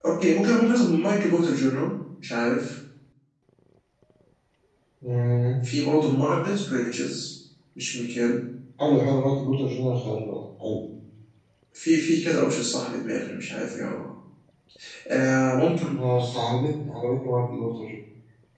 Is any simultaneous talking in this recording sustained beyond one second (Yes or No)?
No